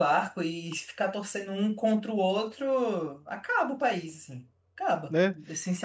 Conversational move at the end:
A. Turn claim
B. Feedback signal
A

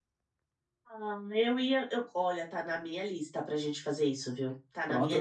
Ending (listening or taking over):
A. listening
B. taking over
A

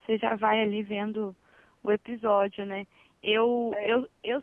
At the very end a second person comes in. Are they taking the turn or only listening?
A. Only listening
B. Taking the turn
A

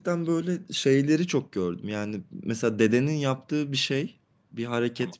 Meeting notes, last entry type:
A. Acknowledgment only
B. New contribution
A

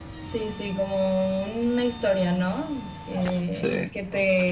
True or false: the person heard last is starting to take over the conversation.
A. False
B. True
A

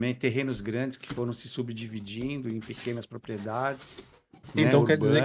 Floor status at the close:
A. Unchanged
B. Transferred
B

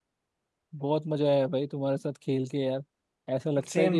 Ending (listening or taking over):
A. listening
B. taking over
A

